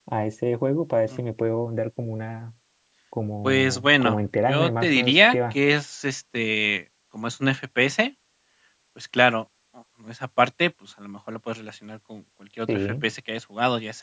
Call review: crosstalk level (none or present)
present